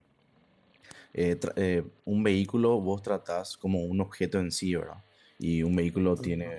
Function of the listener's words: listening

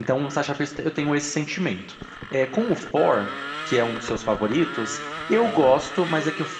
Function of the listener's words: listening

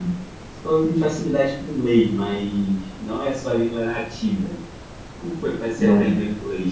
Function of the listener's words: listening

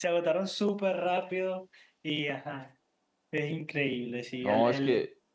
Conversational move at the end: taking over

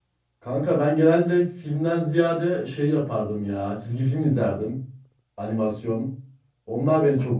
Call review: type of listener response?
listening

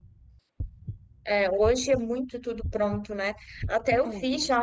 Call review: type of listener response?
listening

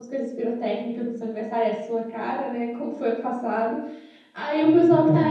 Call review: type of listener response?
listening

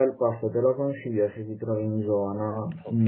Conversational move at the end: taking over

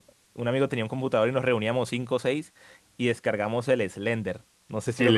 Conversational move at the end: taking over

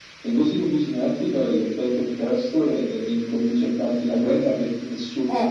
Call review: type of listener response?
taking over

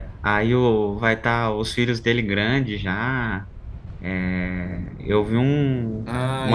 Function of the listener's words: taking over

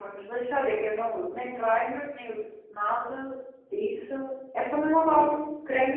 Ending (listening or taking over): taking over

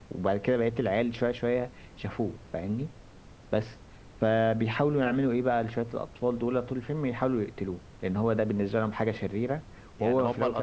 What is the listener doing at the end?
taking over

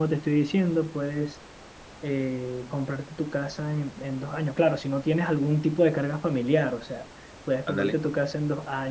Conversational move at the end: listening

